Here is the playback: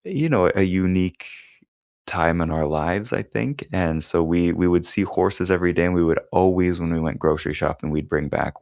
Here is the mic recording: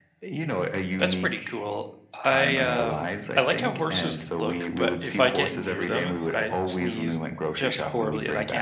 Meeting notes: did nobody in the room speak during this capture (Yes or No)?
No